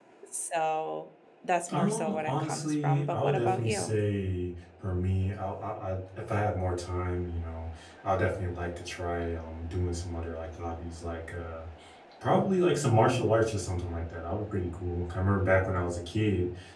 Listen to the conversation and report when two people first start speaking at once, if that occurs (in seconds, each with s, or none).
1.7 s